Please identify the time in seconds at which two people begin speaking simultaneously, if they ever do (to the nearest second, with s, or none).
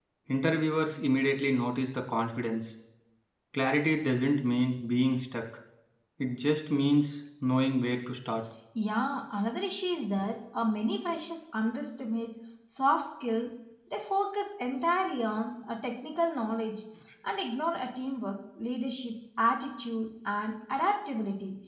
none